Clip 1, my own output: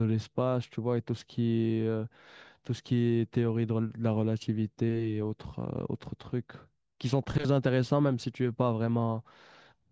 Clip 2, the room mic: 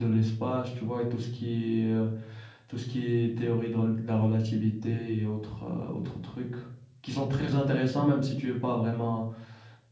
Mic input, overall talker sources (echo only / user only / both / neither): echo only